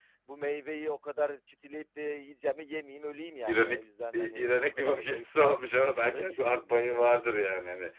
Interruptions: present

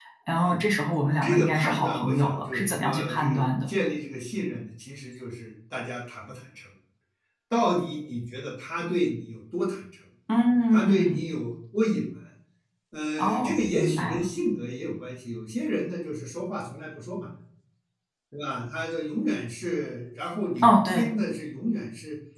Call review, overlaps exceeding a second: present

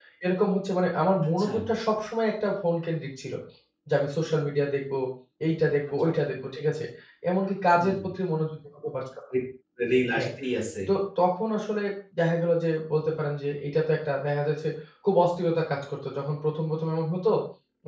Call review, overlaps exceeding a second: none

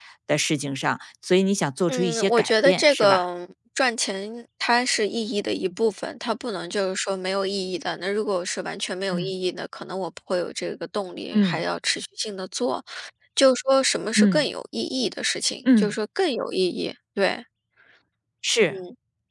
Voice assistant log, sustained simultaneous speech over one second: present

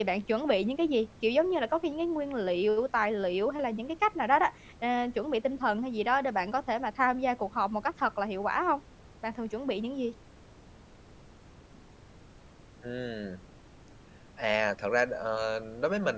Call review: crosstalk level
none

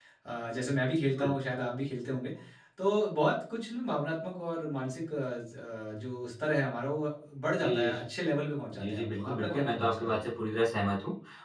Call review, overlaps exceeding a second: present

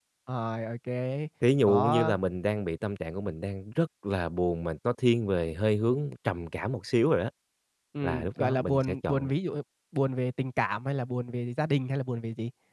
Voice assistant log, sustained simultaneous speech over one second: present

